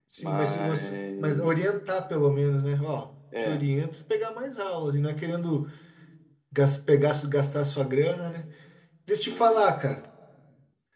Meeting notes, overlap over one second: present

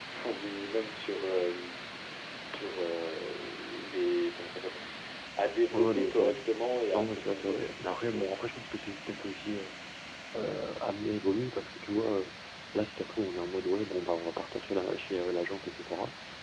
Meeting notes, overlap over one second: present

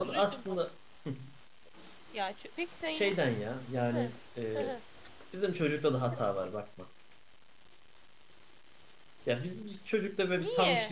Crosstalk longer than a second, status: none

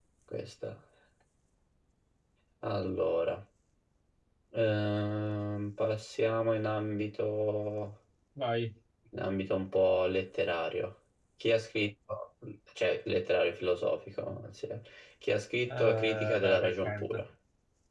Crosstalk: present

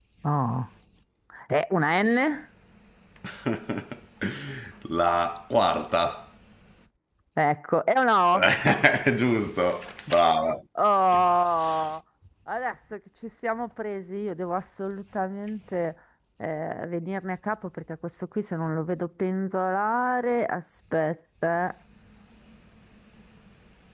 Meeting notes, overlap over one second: none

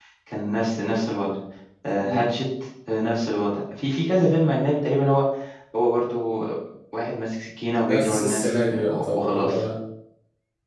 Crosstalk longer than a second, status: present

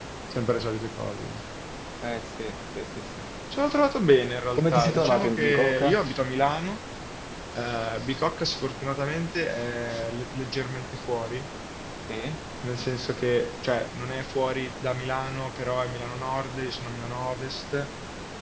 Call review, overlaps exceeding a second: present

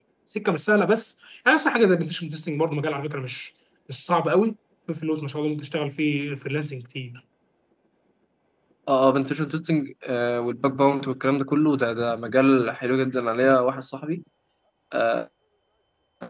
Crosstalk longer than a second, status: none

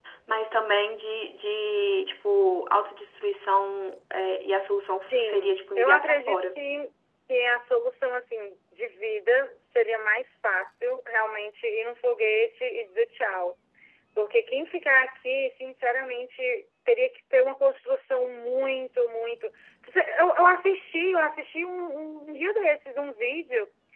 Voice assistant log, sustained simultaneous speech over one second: present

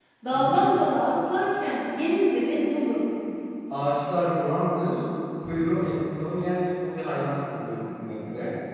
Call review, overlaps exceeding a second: none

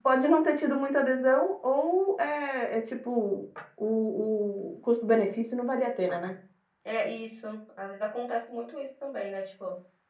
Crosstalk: none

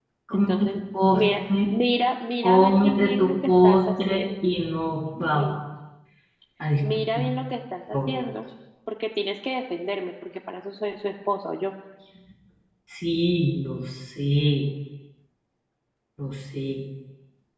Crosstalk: present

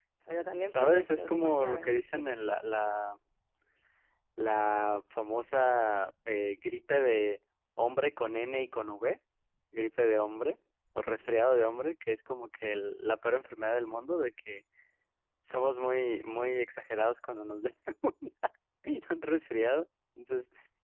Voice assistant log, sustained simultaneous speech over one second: present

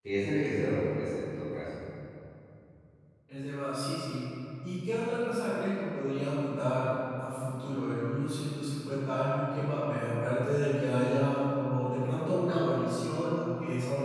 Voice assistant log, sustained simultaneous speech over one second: none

